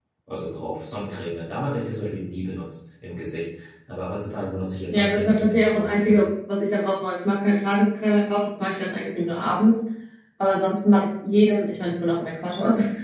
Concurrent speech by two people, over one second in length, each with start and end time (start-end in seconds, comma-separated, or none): 4.9-6.1